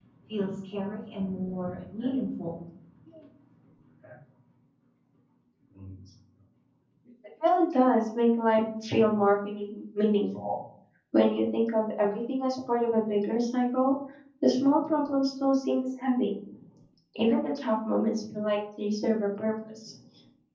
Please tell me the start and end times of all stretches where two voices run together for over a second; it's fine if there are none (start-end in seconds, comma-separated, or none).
none